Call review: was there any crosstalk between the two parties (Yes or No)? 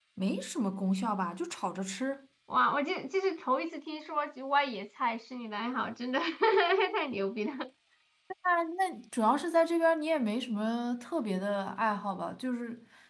No